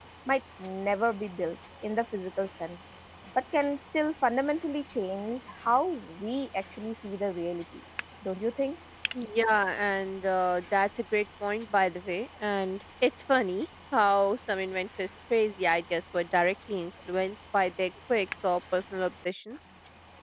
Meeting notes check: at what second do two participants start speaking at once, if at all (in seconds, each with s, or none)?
none